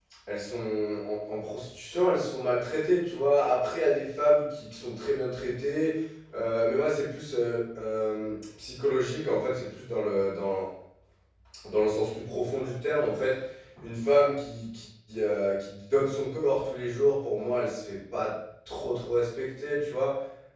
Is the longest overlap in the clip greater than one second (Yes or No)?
No